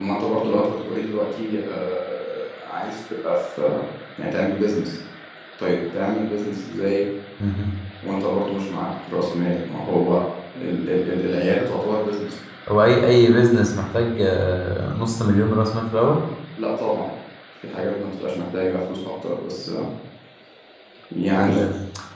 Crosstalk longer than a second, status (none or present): none